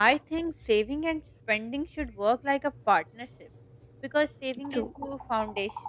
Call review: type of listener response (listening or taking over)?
listening